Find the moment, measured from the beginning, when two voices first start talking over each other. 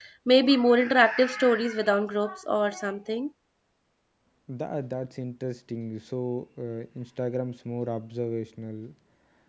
none

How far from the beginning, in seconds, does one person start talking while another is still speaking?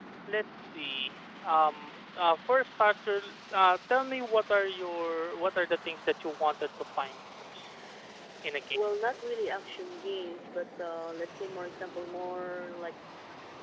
none

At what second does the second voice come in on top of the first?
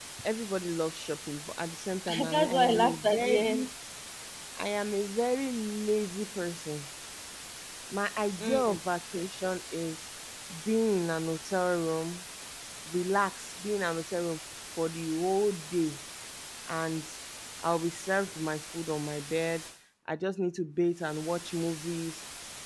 2.1 s

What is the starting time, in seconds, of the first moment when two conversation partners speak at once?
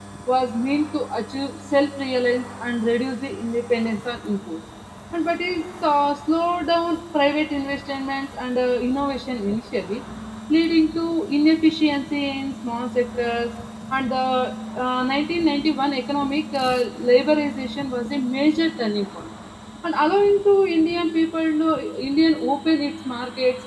none

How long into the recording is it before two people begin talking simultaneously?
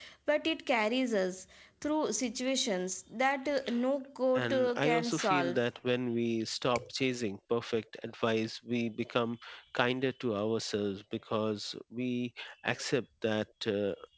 4.4 s

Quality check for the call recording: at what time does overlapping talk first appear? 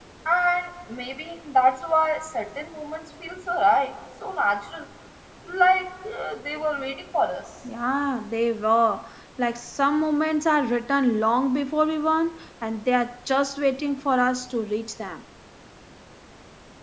none

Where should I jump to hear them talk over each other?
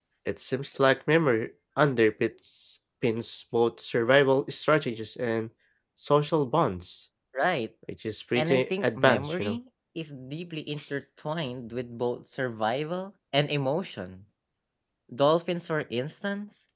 8.4 s

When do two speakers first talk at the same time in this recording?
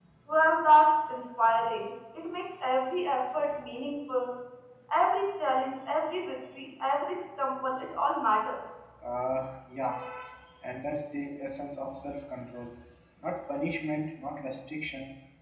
none

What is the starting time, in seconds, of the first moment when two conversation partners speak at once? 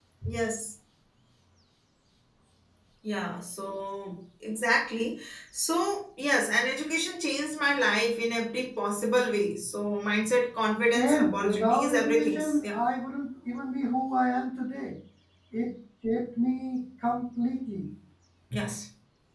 10.9 s

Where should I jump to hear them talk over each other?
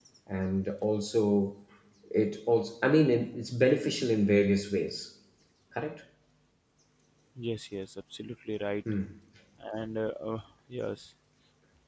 none

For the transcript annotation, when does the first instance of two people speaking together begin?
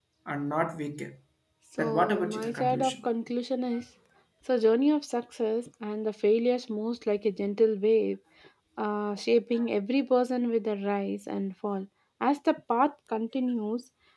1.8 s

